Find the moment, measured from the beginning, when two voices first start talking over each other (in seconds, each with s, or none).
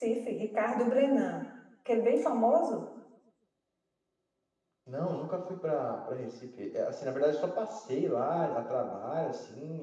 none